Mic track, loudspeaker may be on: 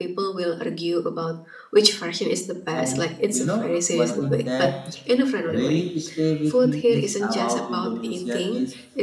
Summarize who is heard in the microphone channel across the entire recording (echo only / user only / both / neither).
both